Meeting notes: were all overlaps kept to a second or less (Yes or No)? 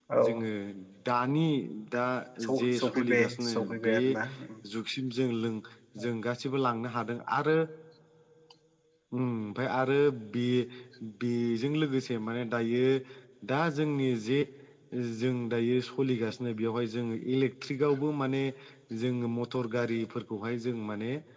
No